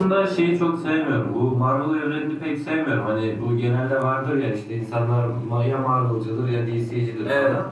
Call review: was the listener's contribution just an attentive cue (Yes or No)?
Yes